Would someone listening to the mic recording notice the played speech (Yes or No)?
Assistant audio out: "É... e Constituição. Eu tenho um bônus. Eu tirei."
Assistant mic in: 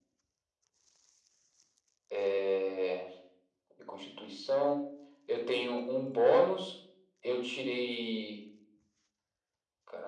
Yes